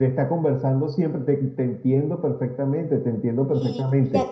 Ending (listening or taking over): taking over